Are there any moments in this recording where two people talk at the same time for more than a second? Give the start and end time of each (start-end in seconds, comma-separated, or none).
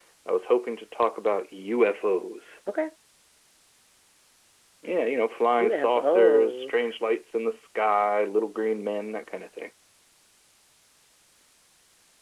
5.6-6.9